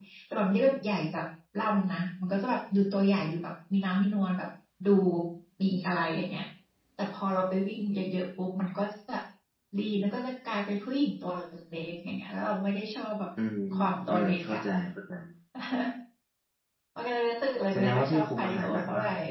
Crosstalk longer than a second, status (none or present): present